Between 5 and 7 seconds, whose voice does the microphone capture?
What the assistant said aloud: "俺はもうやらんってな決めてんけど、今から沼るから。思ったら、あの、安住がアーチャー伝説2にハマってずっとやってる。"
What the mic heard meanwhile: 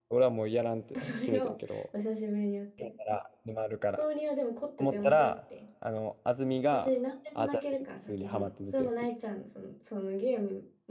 both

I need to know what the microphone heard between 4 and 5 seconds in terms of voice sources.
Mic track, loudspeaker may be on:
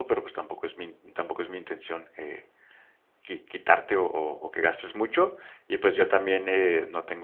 user only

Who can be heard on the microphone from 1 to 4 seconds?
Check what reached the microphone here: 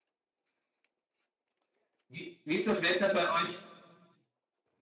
user only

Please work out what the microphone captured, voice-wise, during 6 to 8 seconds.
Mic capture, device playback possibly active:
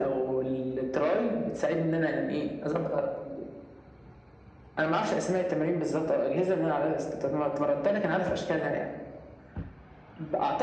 echo only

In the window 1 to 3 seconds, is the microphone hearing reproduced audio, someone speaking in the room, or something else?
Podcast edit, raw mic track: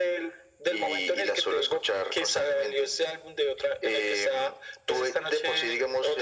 echo only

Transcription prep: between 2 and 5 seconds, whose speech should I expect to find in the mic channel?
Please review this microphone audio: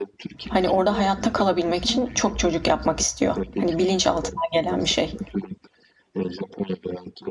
both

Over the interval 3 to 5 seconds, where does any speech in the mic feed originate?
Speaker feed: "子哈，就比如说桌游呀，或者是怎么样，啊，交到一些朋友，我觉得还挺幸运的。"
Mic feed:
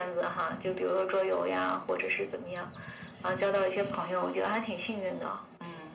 echo only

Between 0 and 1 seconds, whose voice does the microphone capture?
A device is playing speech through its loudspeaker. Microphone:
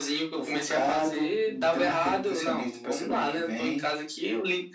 echo only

